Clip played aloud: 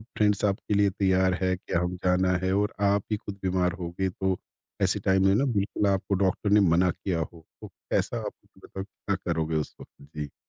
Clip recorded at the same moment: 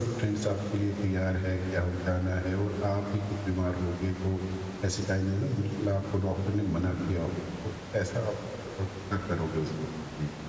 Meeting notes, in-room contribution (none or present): none